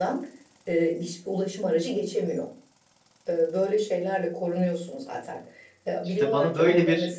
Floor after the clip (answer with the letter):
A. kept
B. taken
B